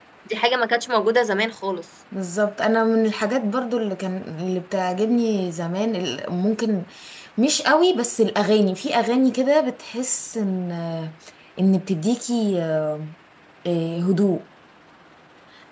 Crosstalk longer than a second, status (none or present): none